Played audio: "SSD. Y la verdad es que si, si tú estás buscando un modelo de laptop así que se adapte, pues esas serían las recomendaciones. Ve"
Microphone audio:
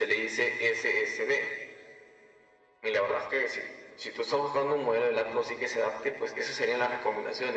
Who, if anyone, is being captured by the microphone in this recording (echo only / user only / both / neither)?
echo only